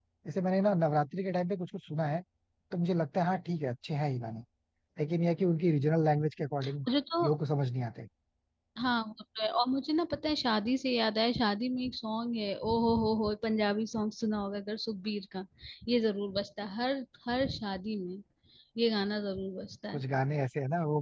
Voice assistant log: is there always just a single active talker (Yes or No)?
Yes